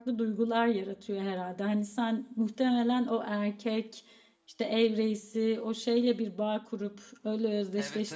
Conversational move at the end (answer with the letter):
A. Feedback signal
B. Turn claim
B